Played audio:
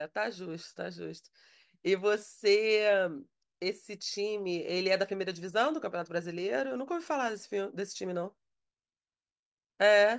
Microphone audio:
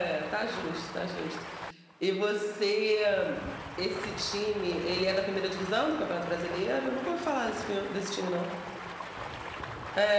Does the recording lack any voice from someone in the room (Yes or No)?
Yes